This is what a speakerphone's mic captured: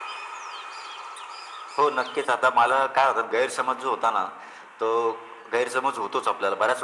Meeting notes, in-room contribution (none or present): none